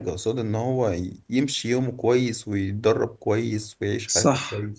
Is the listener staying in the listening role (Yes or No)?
No